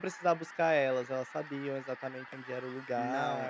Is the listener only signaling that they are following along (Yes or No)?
No